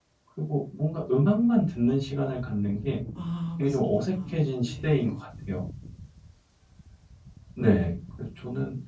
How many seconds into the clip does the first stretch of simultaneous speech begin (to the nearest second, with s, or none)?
4 s